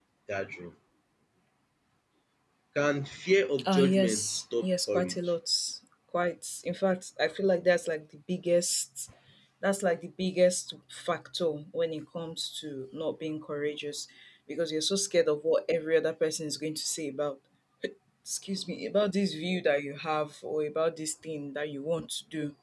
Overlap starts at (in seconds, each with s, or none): 3.6 s